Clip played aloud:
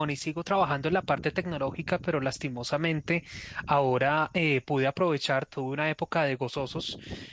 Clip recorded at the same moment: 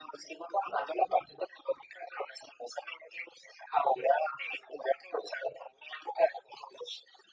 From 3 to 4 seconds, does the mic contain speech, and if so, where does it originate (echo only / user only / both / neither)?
echo only